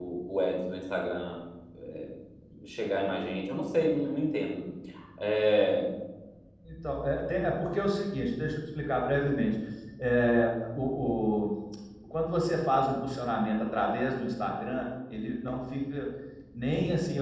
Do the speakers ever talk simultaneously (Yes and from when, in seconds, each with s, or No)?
No